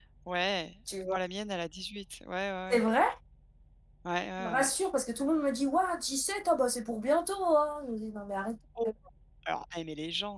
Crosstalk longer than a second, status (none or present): none